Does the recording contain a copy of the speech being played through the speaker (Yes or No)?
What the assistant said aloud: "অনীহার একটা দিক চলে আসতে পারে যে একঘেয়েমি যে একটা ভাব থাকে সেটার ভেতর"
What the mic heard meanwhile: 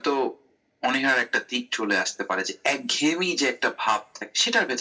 Yes